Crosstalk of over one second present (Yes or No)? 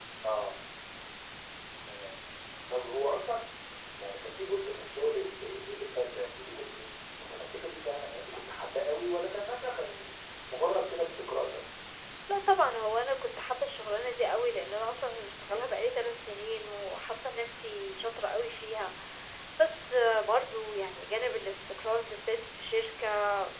No